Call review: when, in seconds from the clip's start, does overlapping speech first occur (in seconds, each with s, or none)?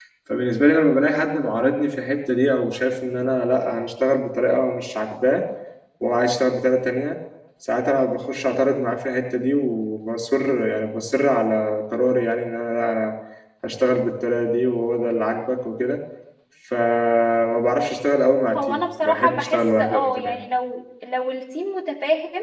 18.5 s